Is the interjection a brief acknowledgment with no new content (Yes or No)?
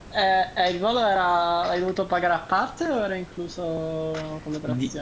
No